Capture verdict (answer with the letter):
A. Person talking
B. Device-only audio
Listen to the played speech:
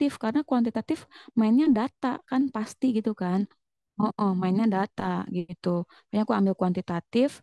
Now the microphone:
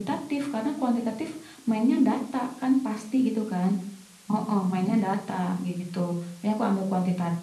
B